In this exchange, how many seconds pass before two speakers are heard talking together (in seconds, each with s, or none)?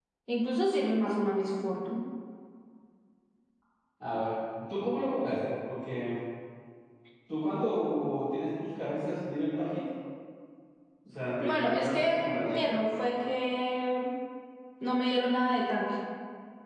11.4 s